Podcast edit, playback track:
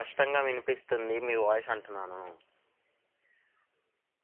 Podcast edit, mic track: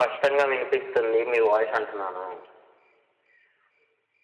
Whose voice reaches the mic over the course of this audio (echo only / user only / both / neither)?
echo only